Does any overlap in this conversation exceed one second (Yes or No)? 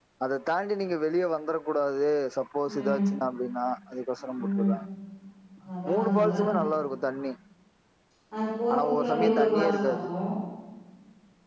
Yes